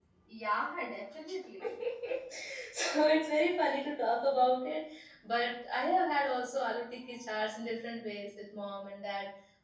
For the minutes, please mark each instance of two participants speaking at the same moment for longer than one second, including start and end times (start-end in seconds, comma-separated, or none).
none